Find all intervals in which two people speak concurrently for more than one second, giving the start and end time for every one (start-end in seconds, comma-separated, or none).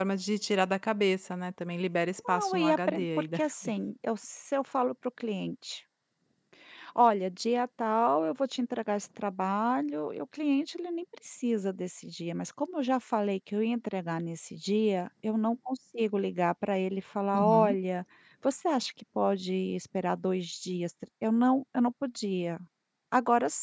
2.3-3.7